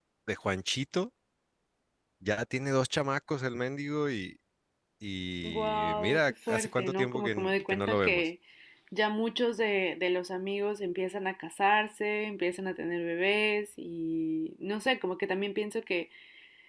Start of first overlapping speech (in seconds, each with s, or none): 5.4 s